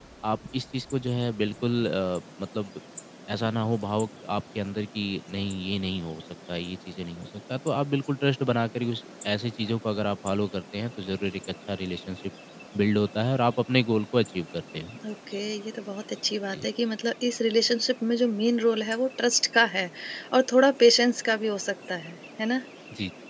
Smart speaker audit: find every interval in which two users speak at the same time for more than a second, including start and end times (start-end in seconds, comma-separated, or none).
none